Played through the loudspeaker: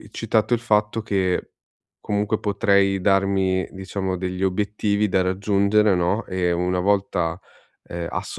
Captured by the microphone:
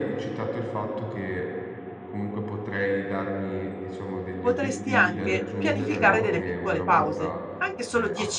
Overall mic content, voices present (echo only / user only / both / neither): both